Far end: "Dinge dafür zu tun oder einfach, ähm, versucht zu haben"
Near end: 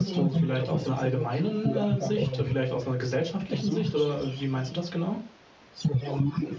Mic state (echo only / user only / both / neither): both